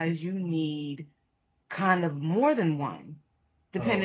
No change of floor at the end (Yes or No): Yes